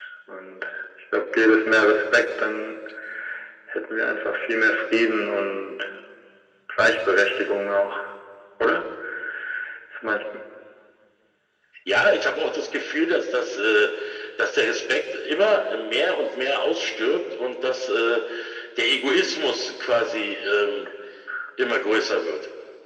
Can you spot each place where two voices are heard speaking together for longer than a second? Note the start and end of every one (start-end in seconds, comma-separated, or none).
none